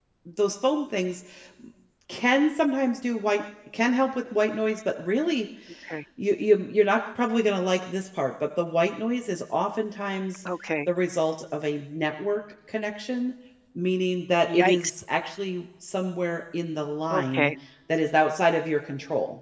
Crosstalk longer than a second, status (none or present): none